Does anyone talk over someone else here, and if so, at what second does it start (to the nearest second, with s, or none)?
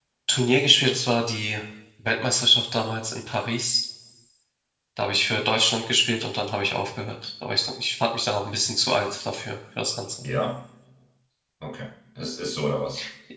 none